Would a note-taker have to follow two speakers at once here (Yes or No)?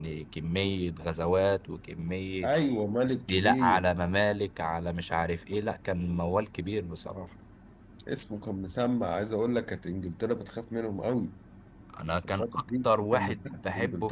Yes